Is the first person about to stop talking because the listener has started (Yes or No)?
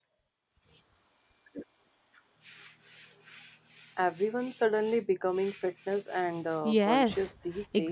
Yes